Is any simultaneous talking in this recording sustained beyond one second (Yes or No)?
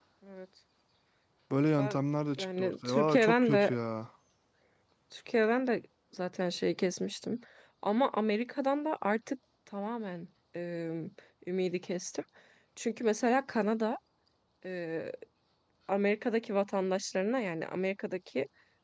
Yes